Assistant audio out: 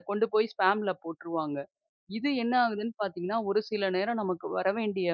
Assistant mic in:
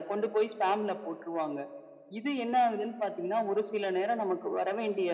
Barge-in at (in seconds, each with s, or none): none